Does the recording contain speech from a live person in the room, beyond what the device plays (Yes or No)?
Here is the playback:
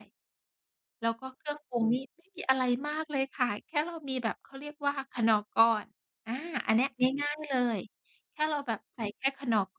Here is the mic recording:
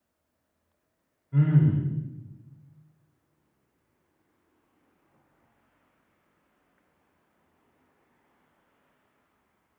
Yes